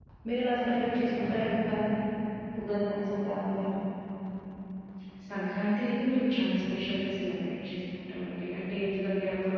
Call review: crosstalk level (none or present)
none